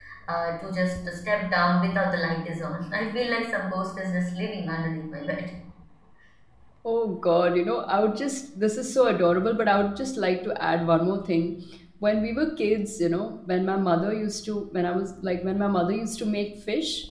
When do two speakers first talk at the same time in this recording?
none

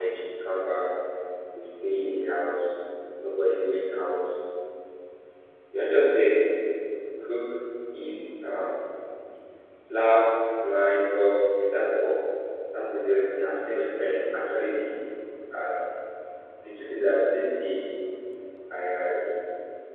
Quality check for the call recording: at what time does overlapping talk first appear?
none

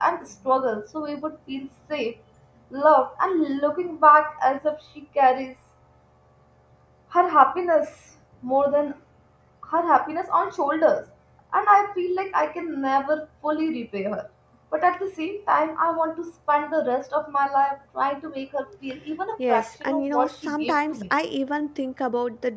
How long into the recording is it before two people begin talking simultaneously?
19 s

